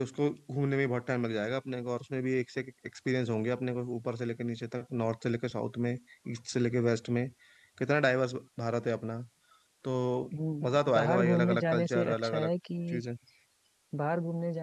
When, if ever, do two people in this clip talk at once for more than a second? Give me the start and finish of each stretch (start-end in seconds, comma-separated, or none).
10.6-12.5